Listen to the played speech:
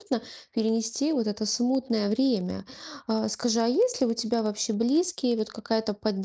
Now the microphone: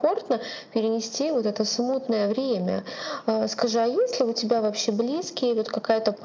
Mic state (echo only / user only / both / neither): echo only